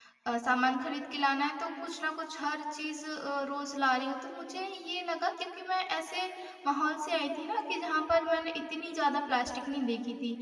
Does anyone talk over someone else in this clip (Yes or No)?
No